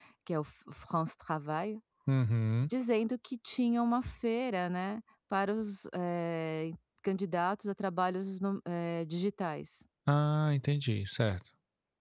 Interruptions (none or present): none